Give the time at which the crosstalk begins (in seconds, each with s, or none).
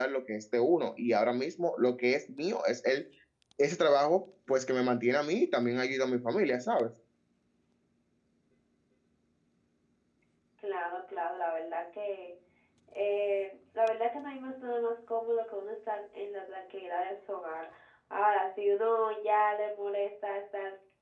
none